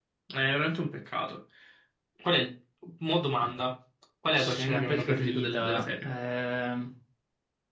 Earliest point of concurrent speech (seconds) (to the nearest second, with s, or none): 4 s